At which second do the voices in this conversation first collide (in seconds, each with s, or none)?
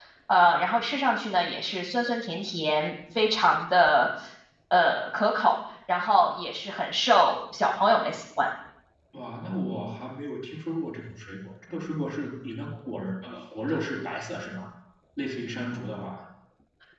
none